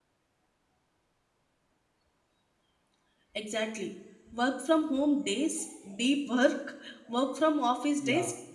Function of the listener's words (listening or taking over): taking over